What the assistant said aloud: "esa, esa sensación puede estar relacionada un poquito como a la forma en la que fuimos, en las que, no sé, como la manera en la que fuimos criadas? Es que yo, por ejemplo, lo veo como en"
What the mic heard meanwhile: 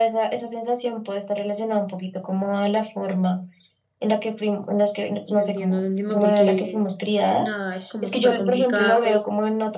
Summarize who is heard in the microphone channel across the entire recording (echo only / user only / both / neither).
both